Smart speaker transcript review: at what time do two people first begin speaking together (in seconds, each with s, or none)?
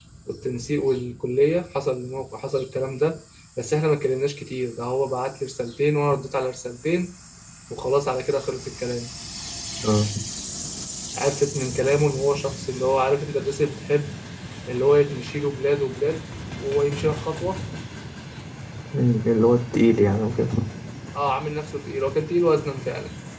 none